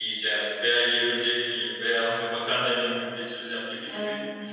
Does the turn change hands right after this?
No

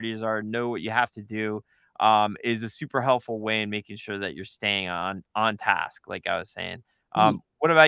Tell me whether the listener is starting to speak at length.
No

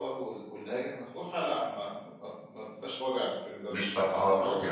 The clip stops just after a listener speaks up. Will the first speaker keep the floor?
No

